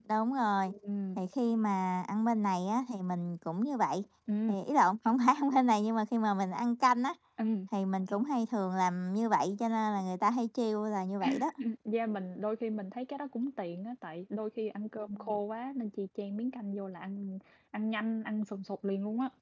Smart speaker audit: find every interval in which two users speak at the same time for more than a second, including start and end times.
none

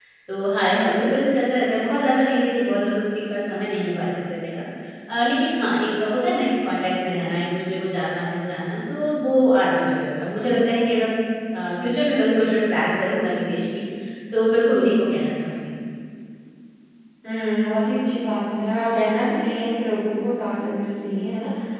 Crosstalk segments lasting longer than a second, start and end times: none

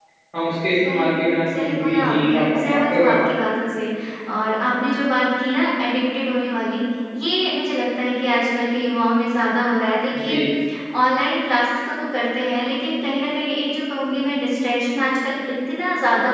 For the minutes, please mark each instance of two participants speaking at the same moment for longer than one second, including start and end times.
1.5-3.3

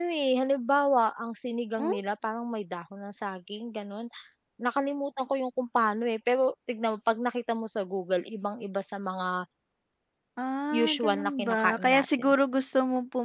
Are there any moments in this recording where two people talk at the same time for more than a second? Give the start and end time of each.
10.7-12.3

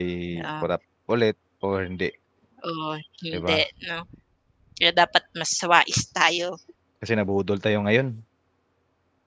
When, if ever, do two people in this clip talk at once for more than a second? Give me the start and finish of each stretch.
none

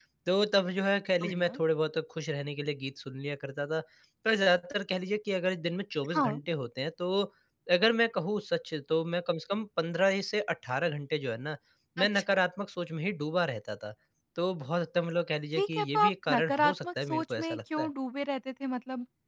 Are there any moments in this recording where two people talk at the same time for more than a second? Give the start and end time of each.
15.6-17.9

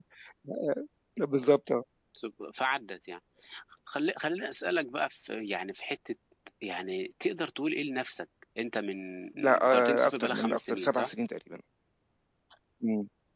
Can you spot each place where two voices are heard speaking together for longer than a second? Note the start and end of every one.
9.4-11.1

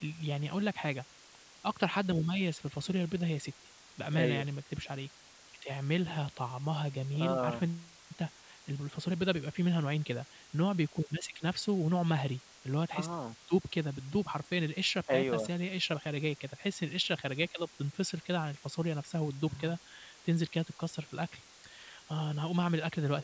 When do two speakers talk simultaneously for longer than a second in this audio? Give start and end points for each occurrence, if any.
none

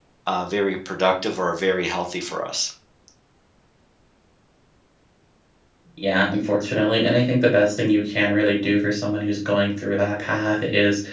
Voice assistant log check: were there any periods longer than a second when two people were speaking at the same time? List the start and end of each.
none

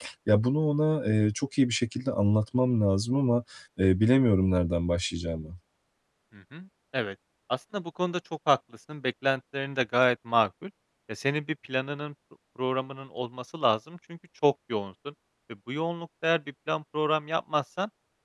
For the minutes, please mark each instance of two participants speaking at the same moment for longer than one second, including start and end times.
none

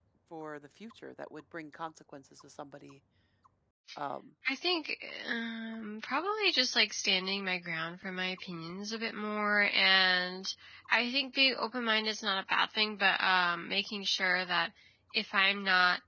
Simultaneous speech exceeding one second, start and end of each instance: none

